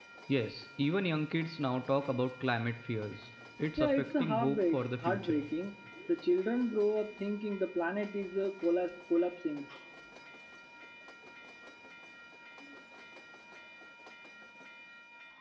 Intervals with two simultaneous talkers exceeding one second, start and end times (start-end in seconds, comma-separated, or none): 3.8-5.4